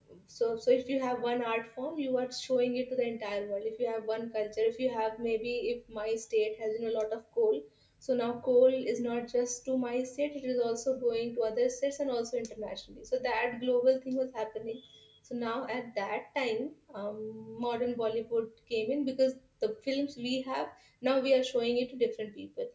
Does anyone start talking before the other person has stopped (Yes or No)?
No